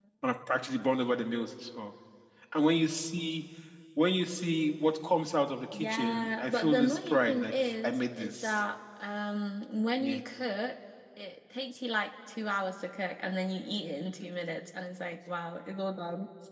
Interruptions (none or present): present